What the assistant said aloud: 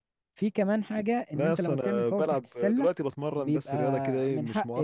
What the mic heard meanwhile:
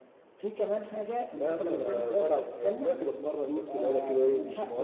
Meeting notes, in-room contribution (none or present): none